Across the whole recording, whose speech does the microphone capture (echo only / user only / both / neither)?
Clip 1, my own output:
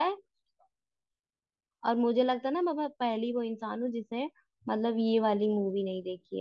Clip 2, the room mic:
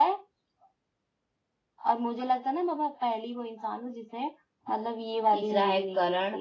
both